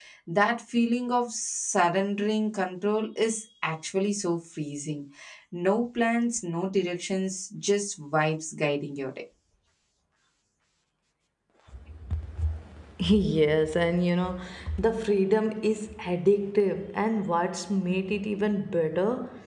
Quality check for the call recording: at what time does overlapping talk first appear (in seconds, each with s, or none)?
none